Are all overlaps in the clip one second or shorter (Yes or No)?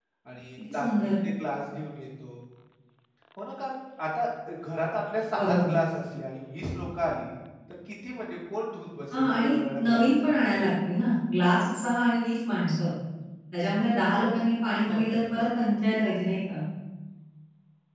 No